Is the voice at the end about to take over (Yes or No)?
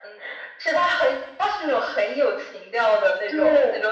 Yes